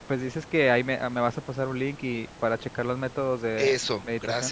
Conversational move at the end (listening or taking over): taking over